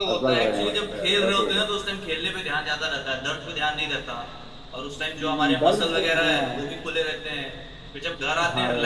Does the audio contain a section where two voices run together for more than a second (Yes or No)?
Yes